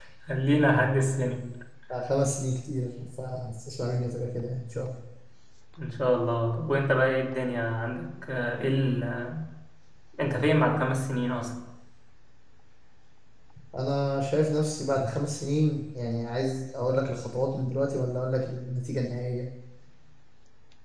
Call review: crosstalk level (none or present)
none